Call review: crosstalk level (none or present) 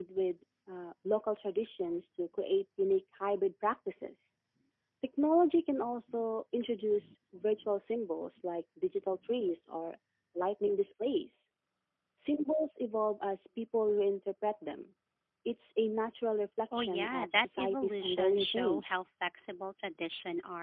present